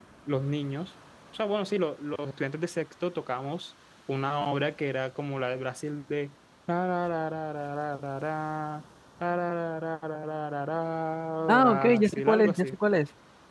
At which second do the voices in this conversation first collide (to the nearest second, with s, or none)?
11 s